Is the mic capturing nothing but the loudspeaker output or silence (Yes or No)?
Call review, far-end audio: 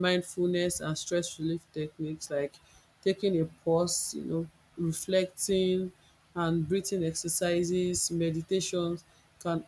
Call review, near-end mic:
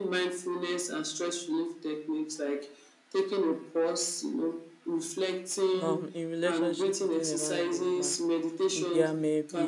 No